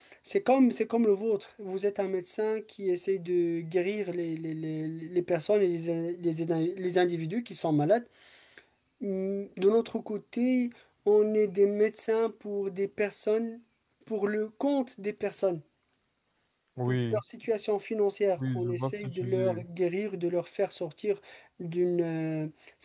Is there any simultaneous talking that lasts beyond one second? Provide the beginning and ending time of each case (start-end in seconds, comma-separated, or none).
18.4-19.6